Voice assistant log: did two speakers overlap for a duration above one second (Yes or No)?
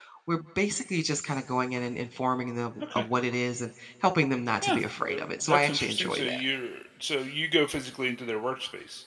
Yes